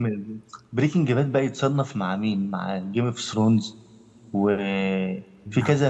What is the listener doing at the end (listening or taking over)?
listening